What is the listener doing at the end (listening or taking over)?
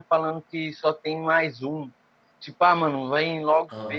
listening